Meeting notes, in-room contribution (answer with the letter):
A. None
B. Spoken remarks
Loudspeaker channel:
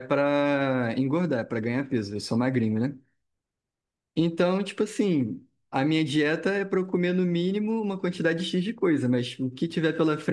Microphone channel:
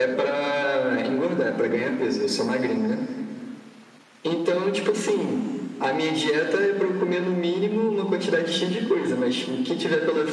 A